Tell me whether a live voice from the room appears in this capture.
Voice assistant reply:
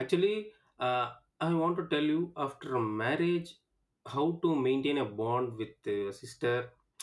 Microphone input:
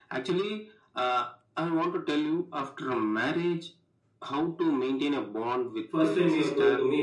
Yes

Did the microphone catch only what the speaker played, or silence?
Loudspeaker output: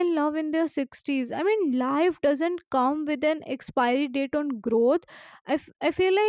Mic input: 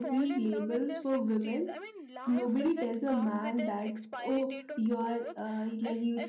No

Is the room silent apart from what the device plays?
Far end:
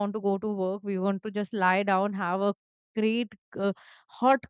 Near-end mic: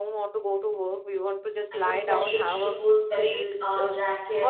No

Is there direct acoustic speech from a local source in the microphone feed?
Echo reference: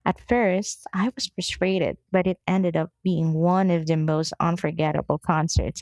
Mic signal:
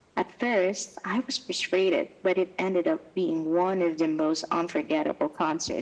No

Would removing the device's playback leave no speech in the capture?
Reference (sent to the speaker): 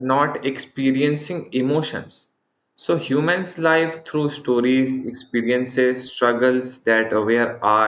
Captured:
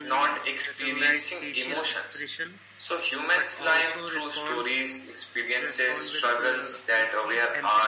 No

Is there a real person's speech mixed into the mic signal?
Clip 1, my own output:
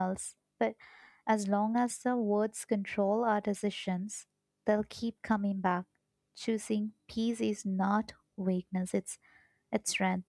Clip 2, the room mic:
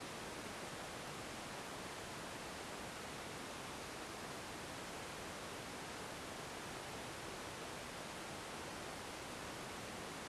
No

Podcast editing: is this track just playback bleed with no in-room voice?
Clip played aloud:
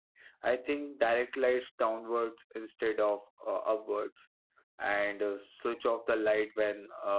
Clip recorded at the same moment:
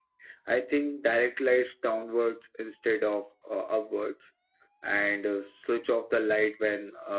Yes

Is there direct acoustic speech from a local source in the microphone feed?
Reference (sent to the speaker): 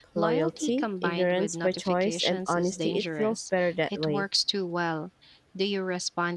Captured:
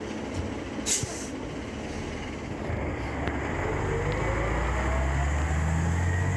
No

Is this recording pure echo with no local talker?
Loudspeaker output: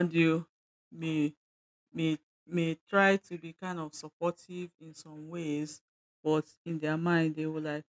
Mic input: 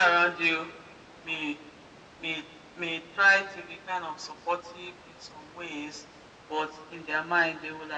Yes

